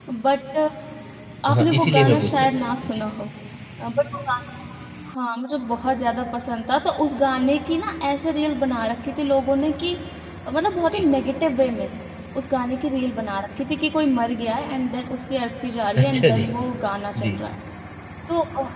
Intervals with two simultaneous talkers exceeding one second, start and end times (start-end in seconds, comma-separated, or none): 1.5-2.9